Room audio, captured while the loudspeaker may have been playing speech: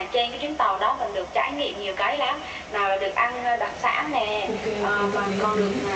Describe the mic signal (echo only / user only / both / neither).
both